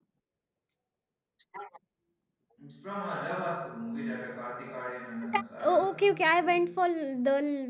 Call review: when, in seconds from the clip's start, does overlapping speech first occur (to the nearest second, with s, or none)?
5 s